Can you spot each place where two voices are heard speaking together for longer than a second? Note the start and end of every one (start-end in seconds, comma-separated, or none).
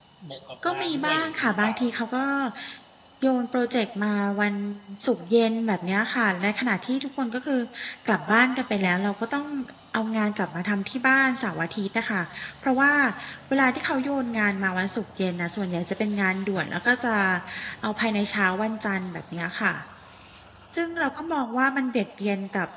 0.7-2.2